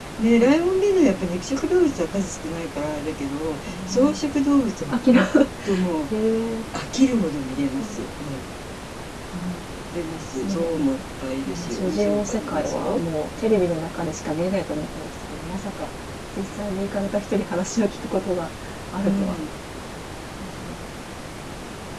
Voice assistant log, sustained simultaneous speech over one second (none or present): present